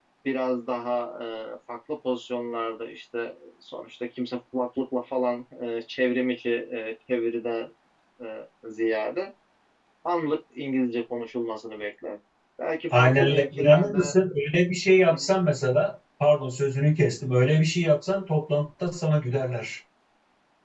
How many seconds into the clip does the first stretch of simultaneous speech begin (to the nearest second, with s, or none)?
13 s